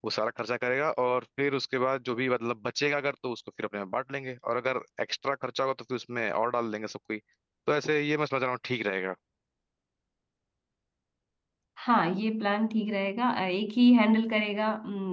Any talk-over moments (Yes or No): No